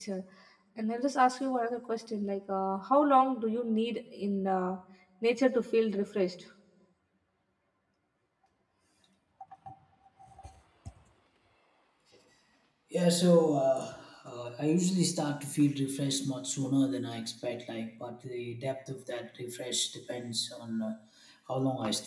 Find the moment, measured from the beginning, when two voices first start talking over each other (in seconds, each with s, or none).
none